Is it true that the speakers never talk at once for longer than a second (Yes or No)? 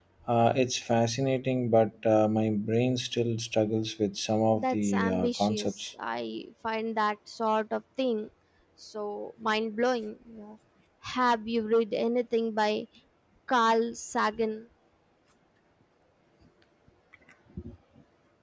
No